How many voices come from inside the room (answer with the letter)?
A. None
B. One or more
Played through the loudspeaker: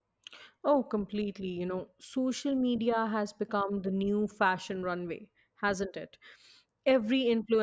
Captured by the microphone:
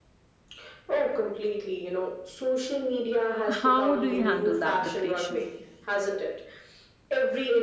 B